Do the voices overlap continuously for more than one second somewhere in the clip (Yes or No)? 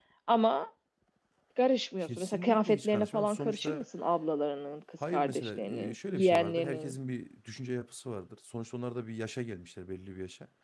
Yes